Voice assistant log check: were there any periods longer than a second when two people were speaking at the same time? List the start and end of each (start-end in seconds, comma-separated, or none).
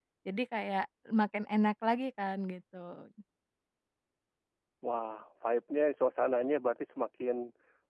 none